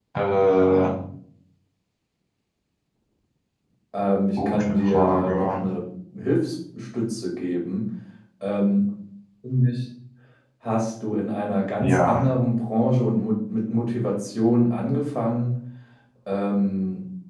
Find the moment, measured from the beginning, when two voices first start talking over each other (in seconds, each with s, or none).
4.4 s